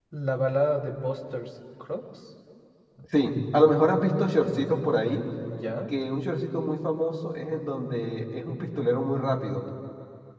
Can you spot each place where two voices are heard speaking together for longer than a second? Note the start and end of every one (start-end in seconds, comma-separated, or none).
none